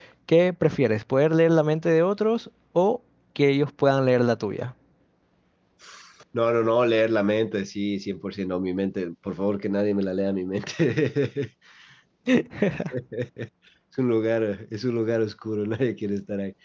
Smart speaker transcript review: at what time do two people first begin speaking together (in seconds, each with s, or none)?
none